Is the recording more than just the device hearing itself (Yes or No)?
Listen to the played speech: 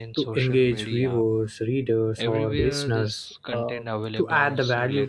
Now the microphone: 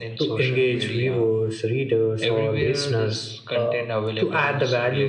No